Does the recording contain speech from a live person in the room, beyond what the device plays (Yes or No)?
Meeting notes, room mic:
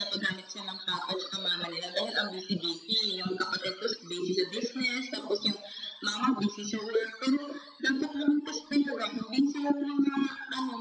No